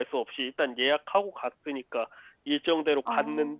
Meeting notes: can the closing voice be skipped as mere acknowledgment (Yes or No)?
Yes